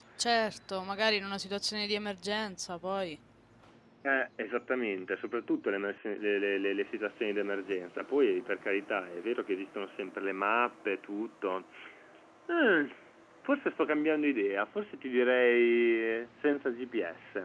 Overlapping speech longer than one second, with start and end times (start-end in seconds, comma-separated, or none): none